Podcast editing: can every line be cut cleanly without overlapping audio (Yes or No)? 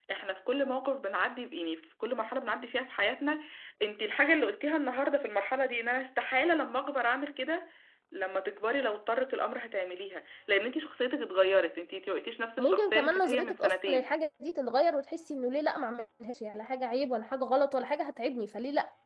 No